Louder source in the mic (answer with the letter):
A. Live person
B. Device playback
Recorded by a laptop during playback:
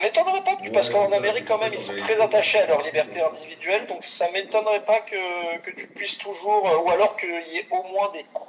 B